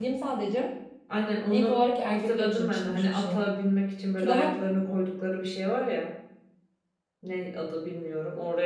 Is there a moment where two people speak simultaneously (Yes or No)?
Yes